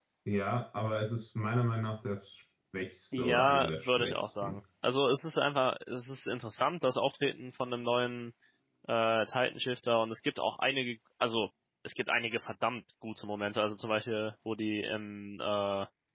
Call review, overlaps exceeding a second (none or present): present